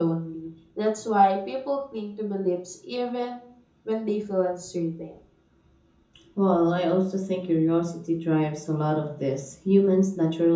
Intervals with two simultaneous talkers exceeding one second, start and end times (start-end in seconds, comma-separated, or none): none